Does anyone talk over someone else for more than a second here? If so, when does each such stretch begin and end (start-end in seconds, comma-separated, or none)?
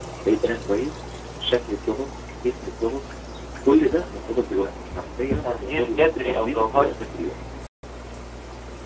5.3-6.9